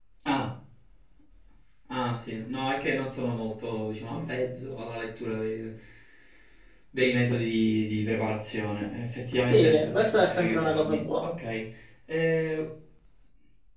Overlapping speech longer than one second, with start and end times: 9.5-11.3

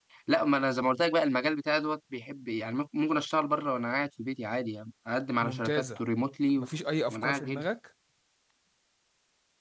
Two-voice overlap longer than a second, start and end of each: none

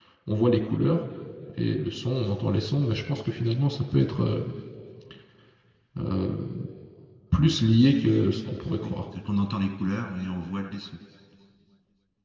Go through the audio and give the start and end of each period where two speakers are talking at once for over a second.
none

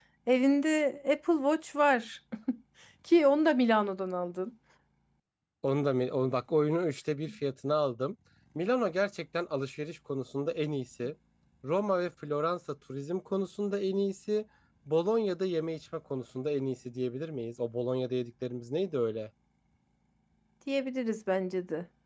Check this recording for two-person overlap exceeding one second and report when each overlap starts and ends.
none

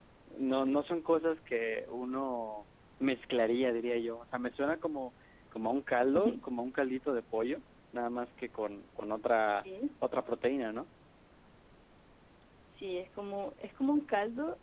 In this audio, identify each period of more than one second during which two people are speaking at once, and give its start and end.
none

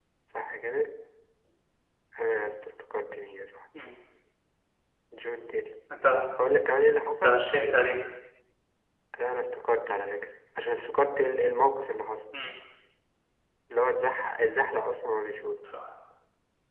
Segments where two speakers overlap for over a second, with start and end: none

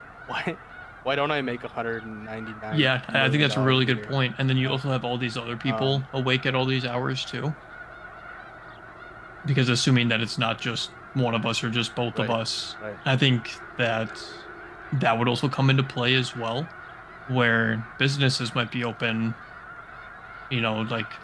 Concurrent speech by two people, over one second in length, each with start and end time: 2.7-4.1

